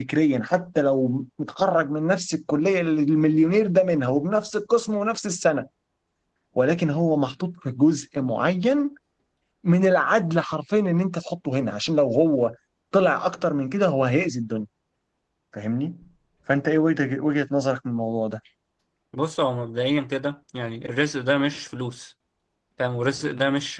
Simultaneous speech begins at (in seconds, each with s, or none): none